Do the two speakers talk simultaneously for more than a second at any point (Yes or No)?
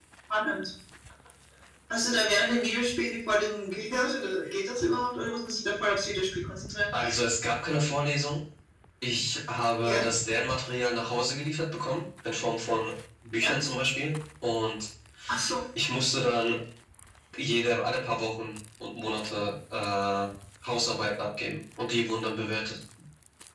No